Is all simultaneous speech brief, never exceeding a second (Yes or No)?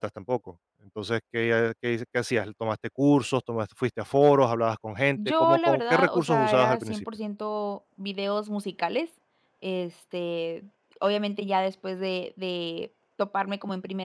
No